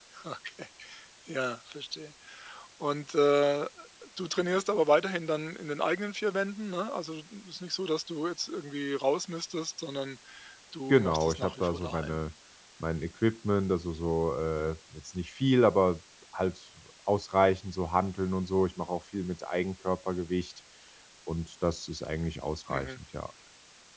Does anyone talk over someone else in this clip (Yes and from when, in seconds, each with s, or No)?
Yes, from 10.9 s